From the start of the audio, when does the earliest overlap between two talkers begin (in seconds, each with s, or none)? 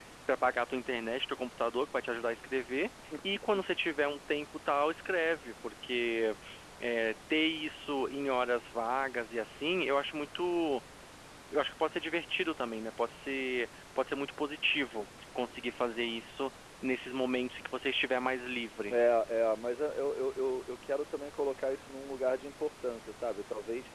none